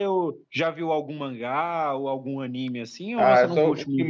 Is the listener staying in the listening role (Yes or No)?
No